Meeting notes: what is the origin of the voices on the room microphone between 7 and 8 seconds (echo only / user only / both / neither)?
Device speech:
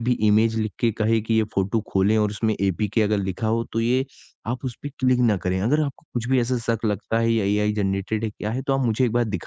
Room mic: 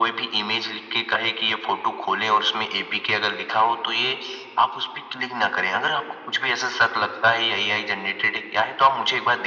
echo only